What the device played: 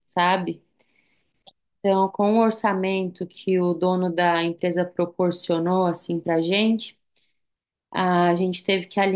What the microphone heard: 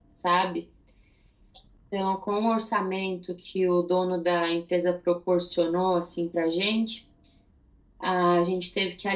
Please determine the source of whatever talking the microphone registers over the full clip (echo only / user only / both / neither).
echo only